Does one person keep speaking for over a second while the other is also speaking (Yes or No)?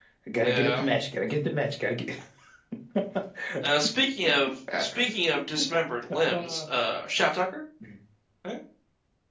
No